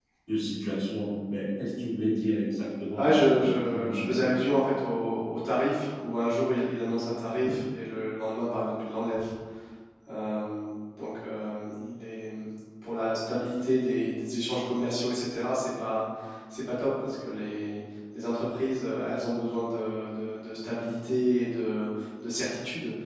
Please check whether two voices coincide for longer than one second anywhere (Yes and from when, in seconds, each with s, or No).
Yes, from 2.9 s